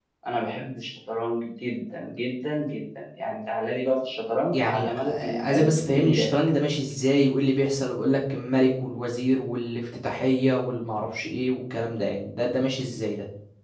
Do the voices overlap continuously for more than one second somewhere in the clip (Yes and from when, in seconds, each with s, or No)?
Yes, from 4.5 s